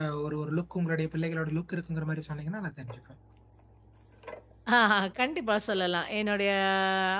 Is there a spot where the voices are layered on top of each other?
No

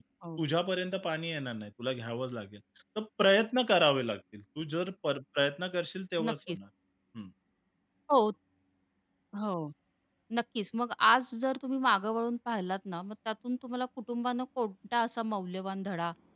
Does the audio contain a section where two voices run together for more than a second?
No

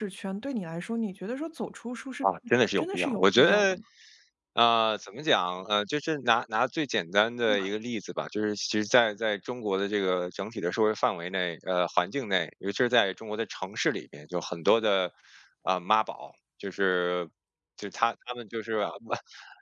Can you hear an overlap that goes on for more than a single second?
Yes, from 2.2 s

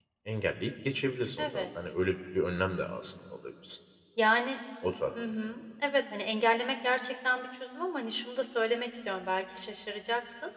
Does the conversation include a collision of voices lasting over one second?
No

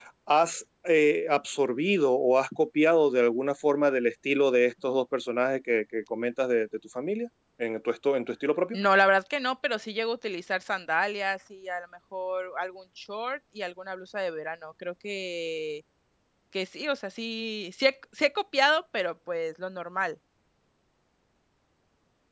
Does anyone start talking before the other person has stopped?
No

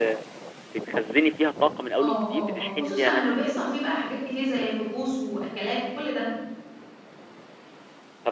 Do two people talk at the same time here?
Yes, from 2.0 s

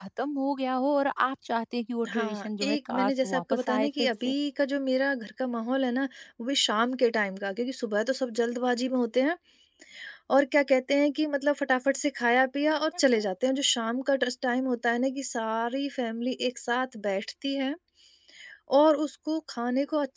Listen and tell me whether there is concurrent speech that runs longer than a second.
Yes, from 2.0 s

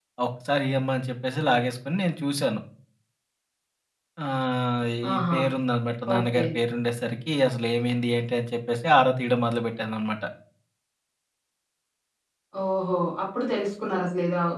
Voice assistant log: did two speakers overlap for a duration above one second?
No

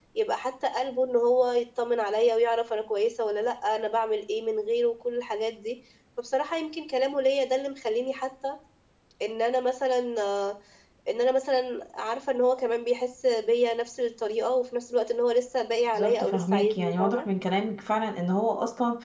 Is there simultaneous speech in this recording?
Yes, from 15.9 s

